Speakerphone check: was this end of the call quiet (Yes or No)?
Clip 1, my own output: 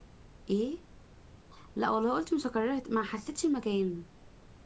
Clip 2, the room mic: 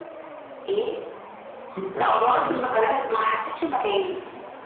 No